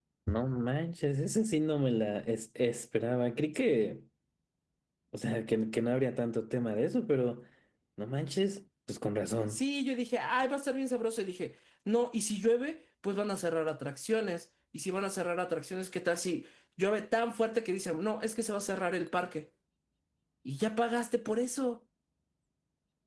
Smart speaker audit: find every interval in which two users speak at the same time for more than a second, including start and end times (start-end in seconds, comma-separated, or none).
none